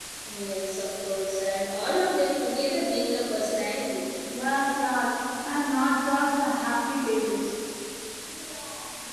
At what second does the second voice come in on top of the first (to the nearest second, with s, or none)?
none